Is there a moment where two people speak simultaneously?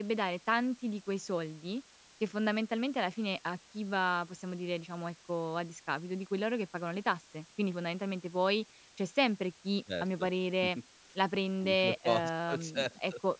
Yes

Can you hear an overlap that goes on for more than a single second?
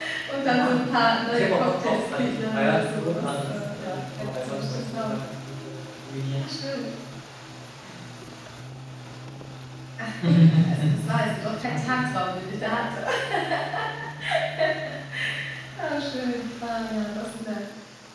Yes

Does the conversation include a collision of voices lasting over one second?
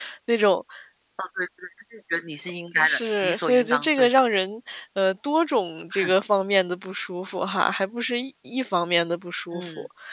Yes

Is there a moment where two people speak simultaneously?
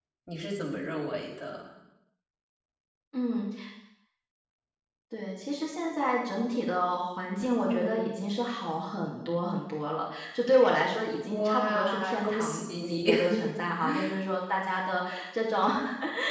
Yes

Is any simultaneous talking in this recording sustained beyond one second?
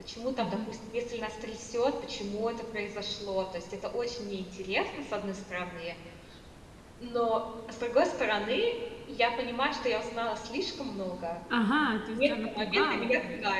Yes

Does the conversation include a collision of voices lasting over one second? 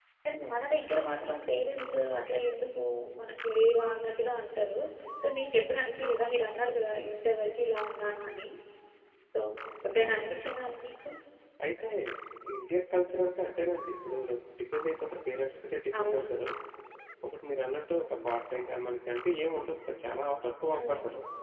No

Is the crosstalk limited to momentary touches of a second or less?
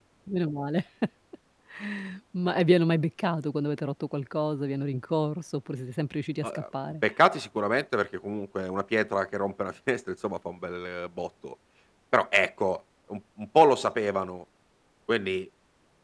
Yes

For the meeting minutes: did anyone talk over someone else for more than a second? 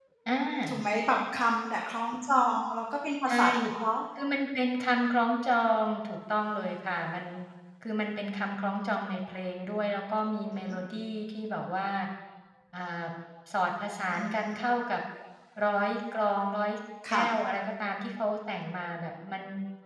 No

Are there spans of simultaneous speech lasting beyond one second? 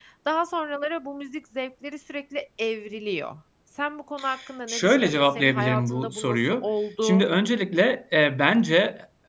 Yes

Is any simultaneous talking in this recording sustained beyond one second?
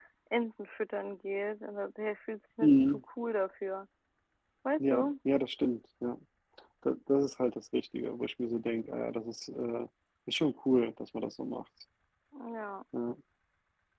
No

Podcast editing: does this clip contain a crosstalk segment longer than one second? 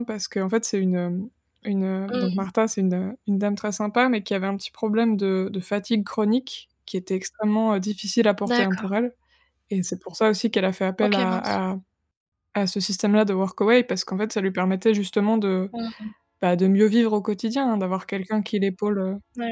No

